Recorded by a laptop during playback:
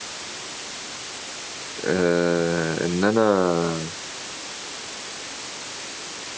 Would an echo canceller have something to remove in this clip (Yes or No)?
No